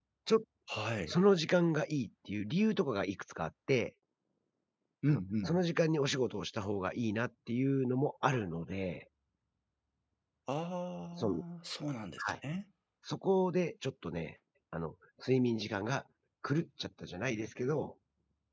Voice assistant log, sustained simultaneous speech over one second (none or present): none